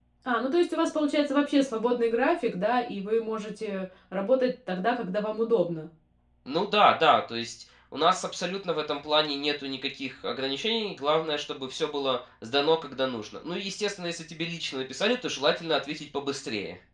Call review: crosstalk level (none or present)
none